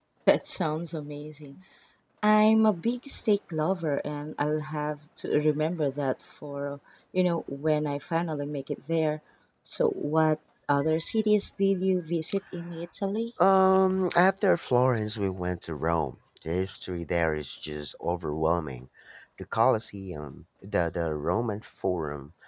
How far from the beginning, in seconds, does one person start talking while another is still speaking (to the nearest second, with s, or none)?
none